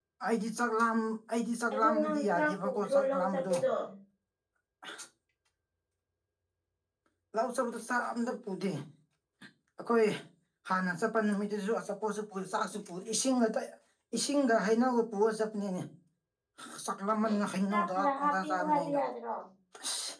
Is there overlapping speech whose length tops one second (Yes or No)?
Yes